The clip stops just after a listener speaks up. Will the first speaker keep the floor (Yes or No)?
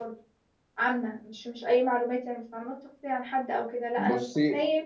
Yes